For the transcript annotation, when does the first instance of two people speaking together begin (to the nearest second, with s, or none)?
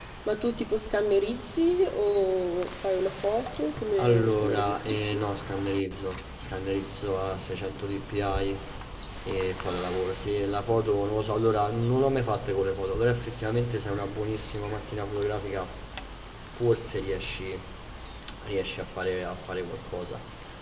4 s